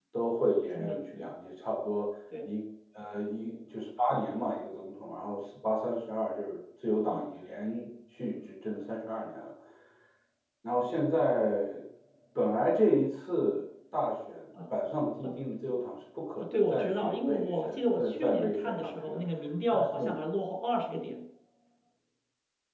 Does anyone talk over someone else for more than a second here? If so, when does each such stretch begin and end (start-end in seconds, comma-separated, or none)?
16.4-19.2